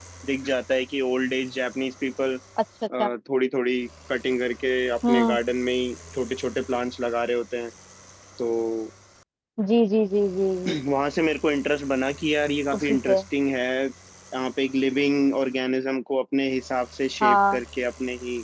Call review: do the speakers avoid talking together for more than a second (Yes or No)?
Yes